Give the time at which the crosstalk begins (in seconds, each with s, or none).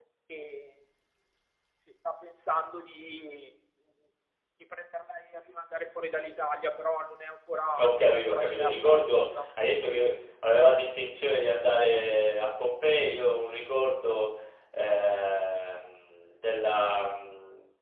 7.8 s